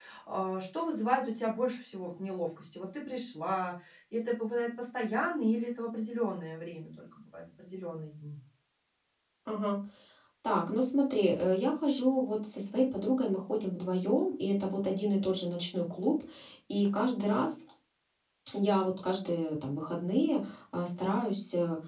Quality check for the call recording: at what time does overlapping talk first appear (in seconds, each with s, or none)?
none